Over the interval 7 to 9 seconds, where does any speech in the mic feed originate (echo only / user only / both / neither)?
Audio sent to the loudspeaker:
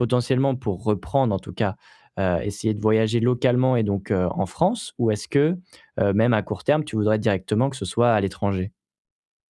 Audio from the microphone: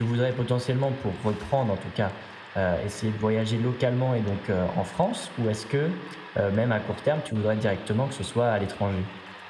echo only